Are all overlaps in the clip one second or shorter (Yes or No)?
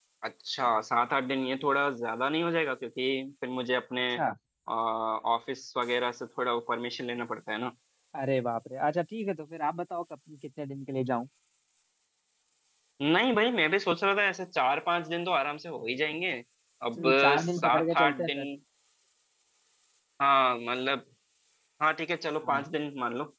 No